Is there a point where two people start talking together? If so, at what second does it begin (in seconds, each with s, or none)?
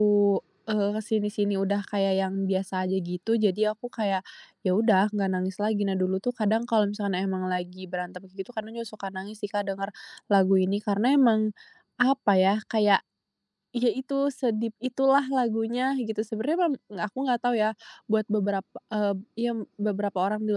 none